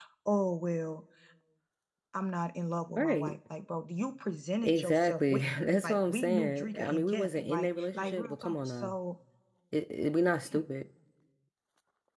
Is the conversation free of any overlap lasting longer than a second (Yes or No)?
No